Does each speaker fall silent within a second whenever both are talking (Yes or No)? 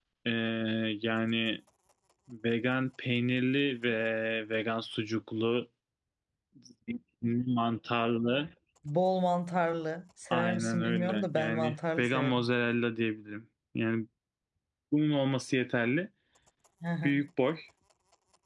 No